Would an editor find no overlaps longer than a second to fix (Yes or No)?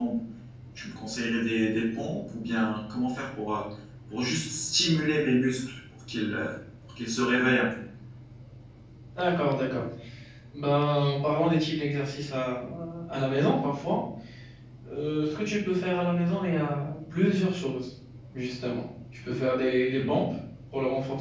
Yes